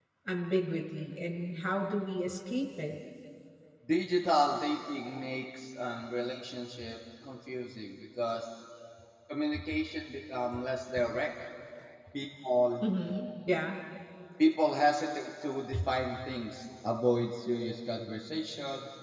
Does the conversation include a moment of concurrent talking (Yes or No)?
No